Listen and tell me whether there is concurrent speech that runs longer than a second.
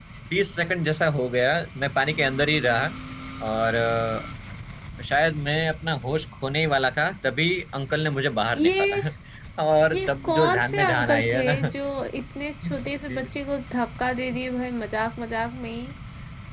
Yes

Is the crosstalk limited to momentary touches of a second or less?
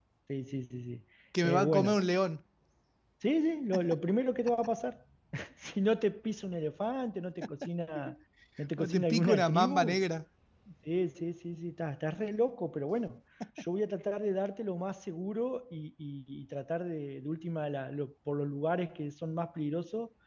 No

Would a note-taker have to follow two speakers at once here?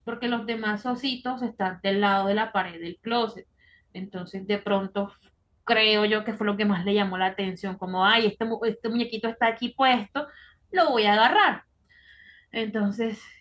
No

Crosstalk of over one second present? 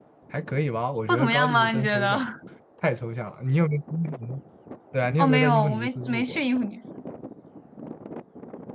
Yes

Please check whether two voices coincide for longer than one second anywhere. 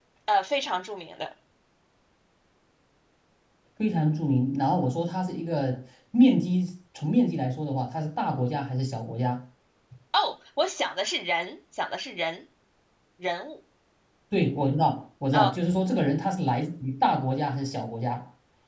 No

